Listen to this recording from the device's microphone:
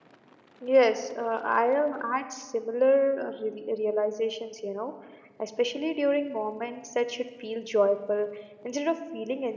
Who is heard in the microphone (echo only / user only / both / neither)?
user only